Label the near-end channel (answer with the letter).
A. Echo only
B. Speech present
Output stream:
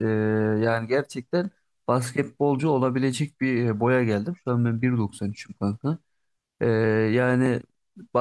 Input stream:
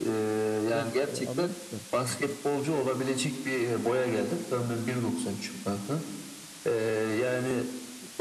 B